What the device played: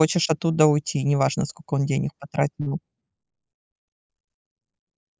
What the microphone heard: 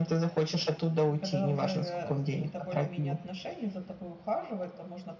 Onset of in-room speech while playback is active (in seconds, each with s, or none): 1.0 s